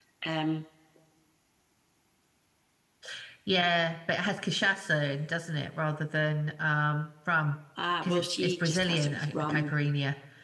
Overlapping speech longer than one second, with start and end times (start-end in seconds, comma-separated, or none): 8.0-9.7